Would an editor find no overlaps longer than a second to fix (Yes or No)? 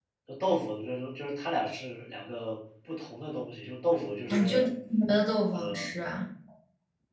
Yes